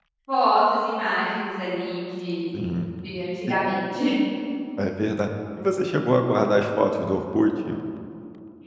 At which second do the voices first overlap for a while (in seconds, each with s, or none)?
none